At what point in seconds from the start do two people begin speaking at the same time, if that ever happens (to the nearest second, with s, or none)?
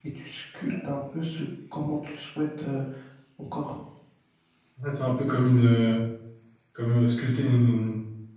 none